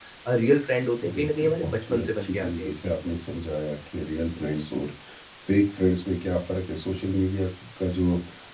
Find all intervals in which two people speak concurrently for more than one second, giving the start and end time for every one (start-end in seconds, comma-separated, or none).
1.1-2.9